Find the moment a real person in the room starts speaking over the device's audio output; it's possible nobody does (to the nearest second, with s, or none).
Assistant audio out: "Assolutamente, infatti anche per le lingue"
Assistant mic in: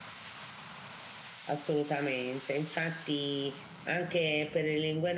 none